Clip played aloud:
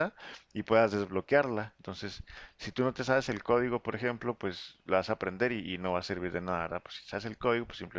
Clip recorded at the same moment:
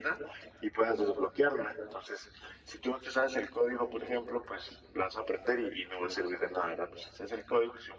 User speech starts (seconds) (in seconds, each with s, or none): none